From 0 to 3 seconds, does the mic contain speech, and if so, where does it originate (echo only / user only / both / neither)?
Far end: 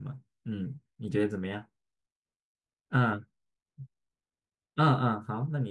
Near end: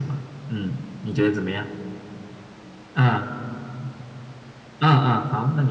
echo only